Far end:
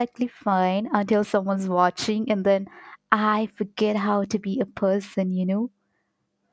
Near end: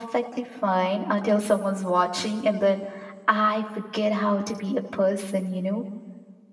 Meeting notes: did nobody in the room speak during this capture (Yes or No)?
Yes